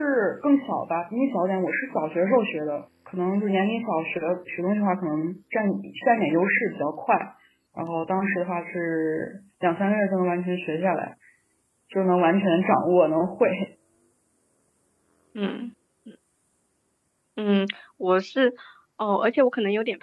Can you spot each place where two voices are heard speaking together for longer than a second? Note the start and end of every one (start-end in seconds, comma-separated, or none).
none